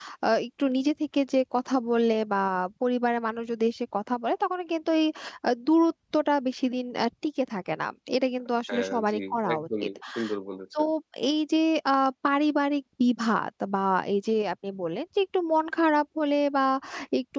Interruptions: present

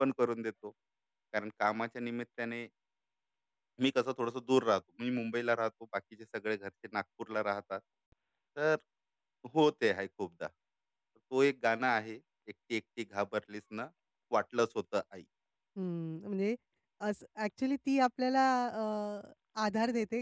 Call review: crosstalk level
none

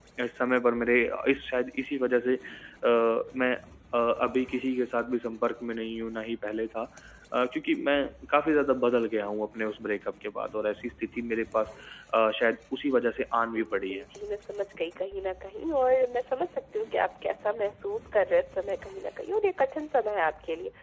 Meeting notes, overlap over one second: none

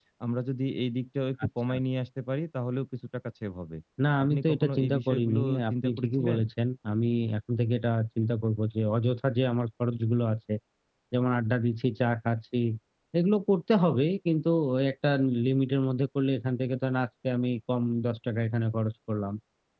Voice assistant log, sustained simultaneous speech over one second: present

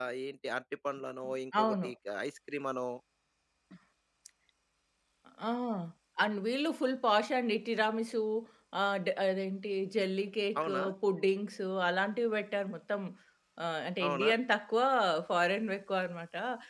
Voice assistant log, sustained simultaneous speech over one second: none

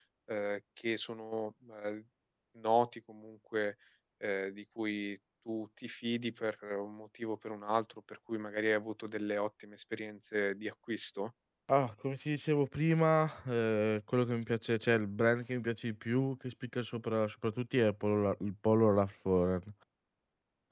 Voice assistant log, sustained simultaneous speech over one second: none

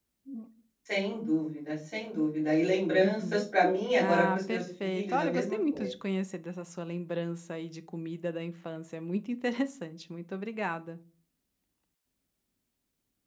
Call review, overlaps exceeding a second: present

